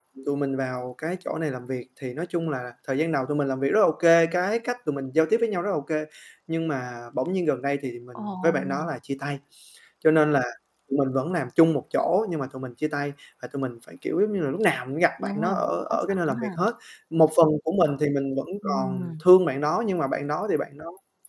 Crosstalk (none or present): present